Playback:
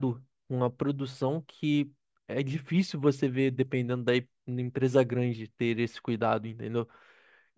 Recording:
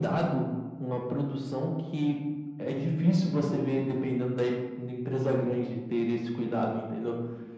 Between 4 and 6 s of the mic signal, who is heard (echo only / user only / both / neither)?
echo only